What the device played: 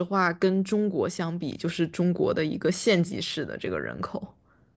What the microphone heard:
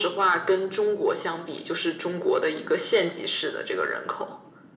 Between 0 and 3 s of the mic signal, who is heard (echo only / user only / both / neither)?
echo only